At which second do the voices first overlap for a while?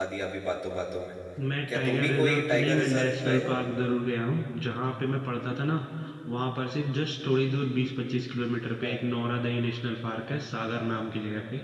2 s

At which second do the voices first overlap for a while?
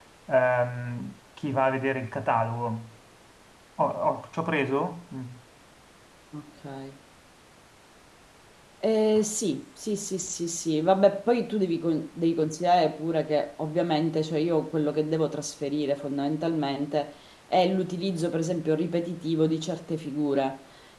none

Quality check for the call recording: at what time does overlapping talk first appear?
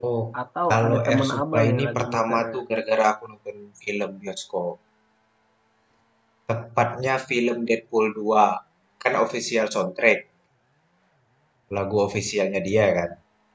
1 s

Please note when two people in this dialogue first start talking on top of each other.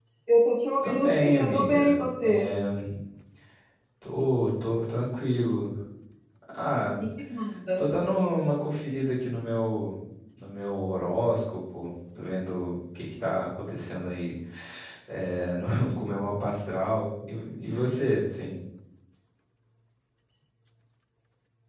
1 s

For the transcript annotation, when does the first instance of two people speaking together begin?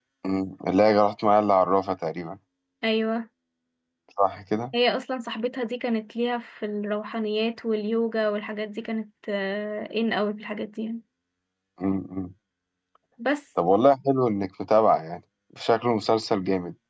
none

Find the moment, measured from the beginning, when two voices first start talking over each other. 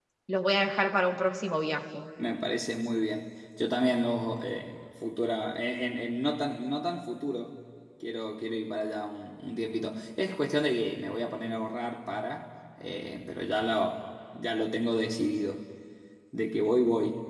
none

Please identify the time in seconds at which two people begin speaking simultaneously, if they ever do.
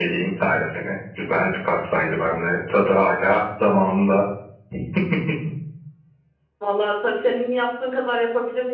none

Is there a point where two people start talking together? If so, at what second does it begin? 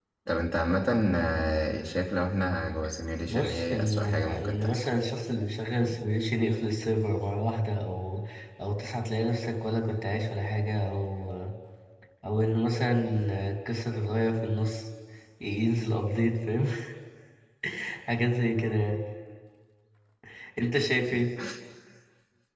3 s

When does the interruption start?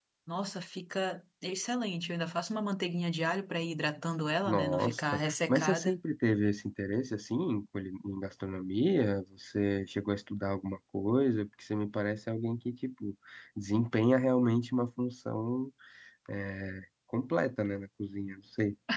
4 s

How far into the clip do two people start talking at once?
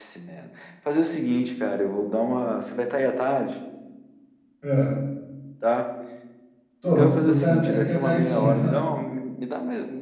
7 s

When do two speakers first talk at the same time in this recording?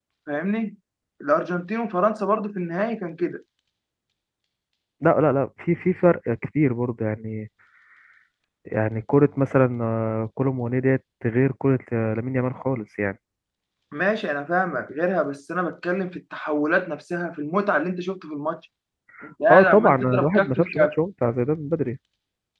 19 s

